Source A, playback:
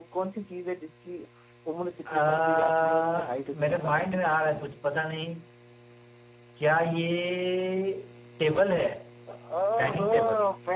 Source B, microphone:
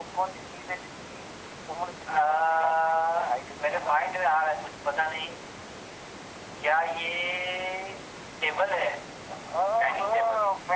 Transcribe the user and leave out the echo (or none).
none